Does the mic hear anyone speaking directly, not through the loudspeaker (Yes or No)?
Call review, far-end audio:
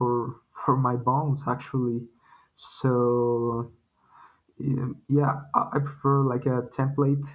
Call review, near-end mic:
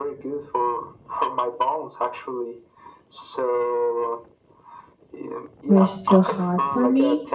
Yes